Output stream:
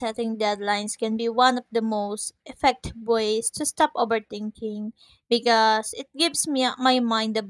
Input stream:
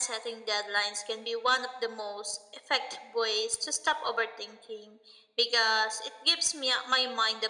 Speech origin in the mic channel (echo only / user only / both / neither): echo only